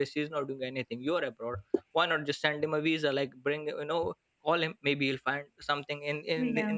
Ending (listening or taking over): listening